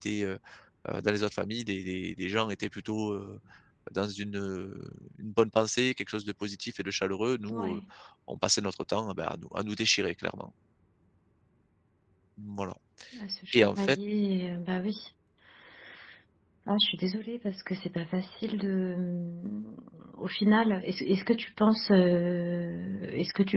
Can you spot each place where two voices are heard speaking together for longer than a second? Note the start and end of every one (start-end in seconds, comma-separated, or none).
none